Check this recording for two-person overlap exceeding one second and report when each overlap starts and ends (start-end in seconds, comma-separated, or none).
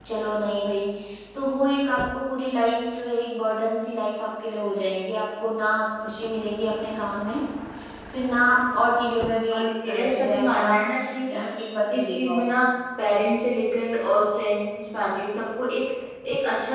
9.5-10.7